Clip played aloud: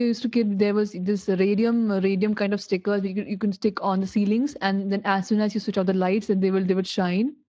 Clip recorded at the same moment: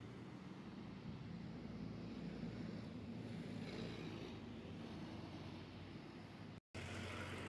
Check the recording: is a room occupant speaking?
No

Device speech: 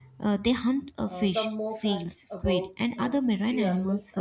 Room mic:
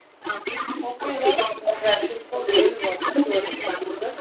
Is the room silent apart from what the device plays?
No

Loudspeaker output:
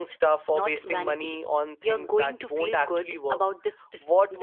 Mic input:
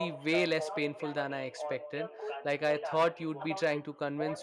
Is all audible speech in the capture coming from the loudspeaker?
No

